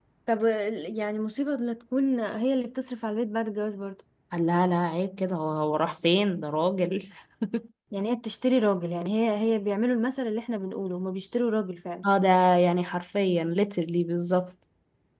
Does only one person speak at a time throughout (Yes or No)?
Yes